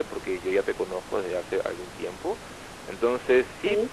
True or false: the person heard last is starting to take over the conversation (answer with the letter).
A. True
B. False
B